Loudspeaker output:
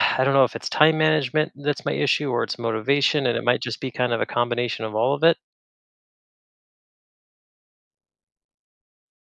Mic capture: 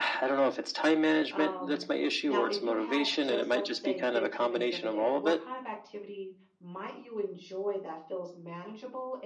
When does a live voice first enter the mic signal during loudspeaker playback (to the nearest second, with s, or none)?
1 s